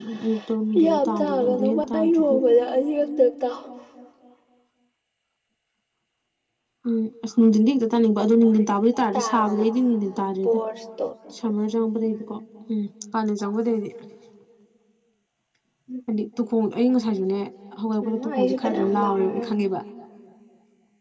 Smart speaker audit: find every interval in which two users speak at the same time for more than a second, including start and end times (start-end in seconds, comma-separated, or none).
0.8-2.4, 18.0-19.4